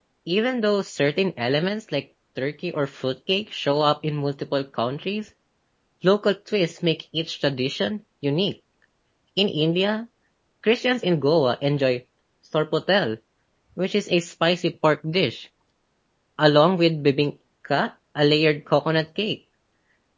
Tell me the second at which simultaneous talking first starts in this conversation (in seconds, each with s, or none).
none